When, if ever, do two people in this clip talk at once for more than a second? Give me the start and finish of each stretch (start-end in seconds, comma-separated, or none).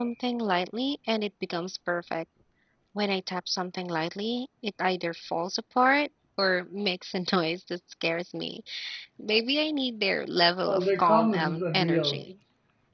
10.7-12.2